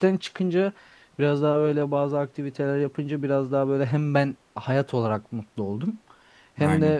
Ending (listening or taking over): listening